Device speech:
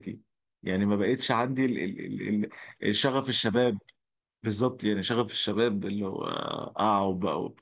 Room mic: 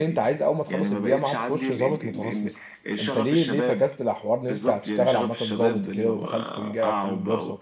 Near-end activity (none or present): present